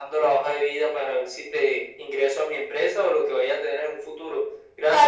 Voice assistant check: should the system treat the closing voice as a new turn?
Yes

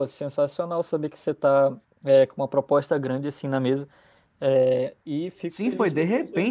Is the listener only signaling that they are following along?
No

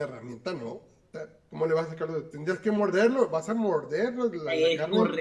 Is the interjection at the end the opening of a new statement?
Yes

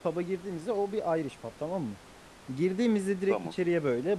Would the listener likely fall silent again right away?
Yes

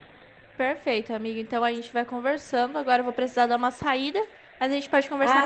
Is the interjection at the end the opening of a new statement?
Yes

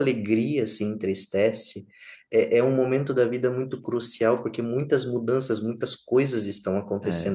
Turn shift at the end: Yes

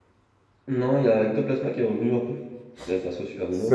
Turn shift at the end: Yes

